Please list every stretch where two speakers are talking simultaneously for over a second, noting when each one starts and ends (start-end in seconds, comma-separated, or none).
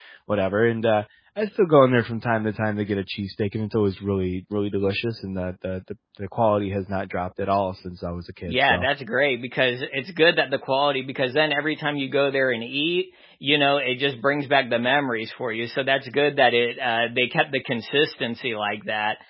none